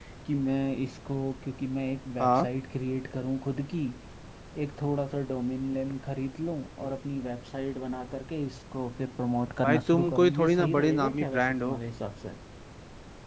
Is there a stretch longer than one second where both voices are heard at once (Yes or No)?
Yes